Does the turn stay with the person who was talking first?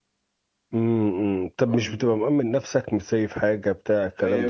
No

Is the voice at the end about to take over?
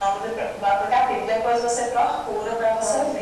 Yes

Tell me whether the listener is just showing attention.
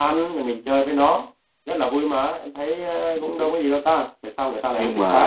No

